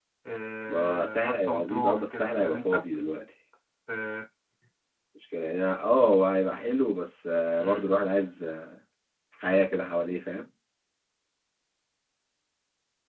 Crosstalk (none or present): present